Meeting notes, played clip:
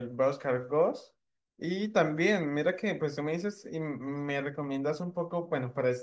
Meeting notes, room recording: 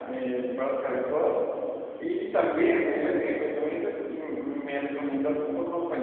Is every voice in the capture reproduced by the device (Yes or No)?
Yes